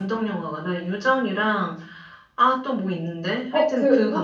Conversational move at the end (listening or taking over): taking over